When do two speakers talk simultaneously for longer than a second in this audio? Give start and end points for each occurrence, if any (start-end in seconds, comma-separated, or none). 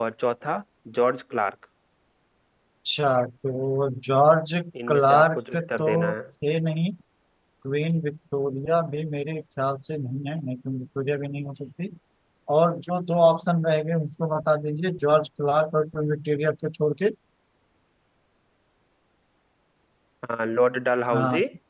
4.9-6.1